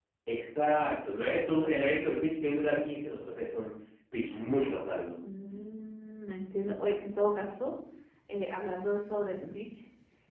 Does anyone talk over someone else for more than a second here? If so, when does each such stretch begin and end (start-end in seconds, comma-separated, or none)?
none